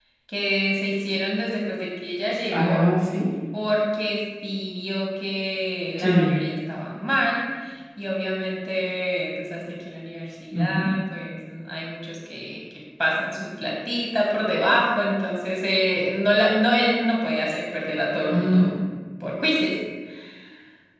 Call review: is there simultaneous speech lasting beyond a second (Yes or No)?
No